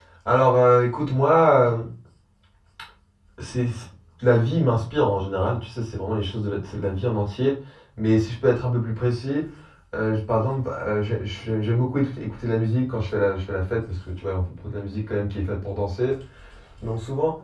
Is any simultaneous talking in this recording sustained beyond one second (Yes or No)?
No